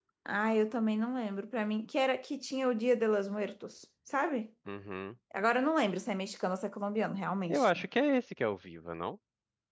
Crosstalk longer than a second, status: none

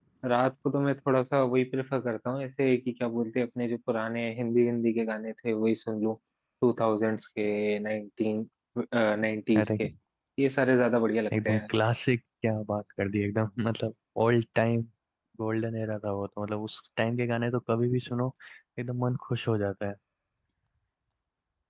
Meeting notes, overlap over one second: none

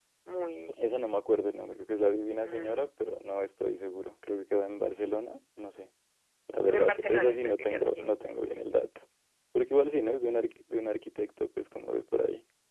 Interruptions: present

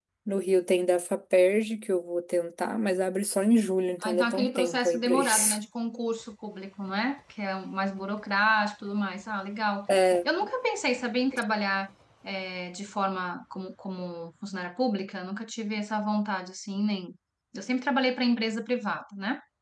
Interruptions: present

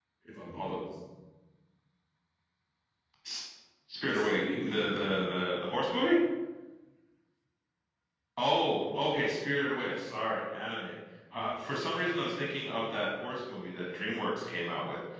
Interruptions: present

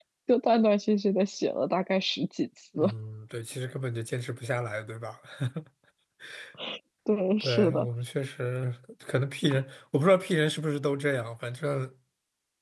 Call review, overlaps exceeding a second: none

